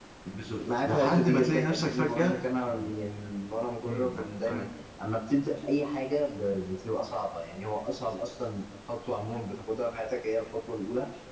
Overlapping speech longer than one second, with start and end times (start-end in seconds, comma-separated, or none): 0.6-2.3